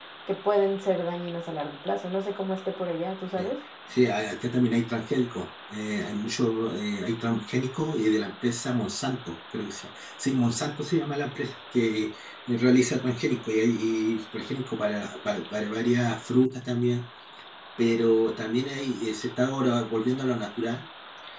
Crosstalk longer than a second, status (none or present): none